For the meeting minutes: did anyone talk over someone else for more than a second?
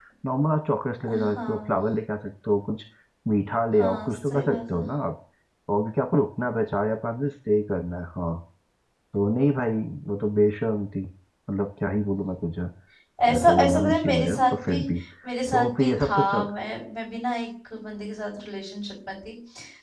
Yes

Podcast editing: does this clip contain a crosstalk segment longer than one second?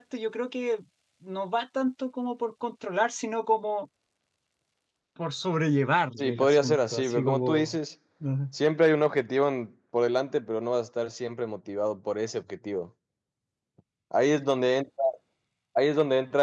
Yes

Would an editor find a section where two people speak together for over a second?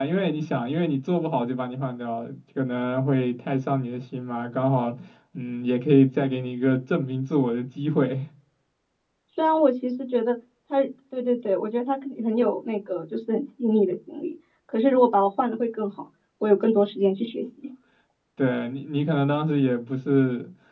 No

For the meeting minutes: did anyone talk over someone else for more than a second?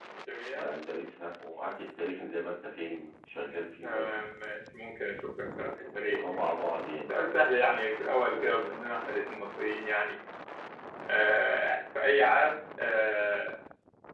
No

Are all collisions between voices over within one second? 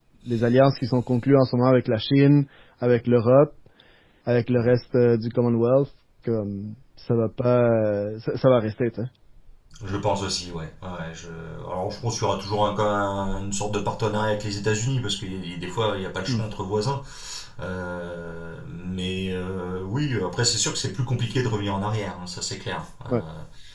Yes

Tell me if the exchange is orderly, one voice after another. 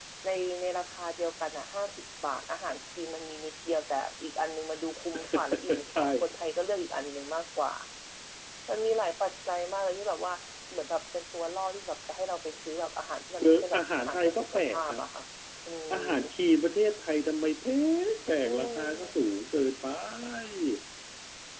No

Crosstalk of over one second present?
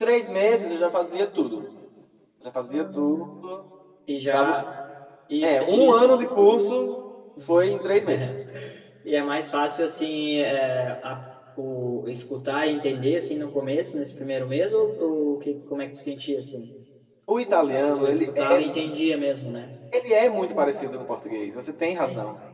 Yes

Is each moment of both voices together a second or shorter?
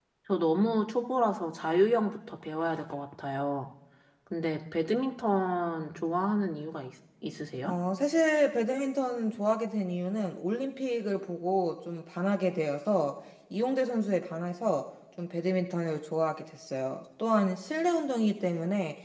Yes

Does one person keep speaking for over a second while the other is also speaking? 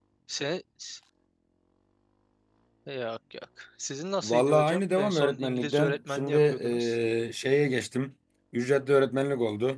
Yes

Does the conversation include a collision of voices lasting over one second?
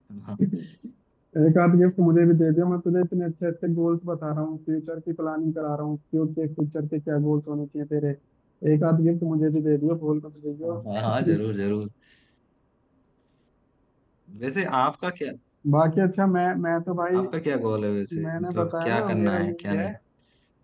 Yes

